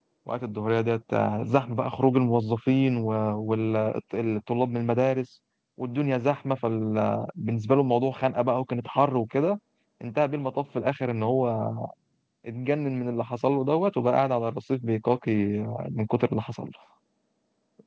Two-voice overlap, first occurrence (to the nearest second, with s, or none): none